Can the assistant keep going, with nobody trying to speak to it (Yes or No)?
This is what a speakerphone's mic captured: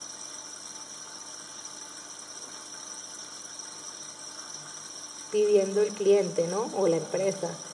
No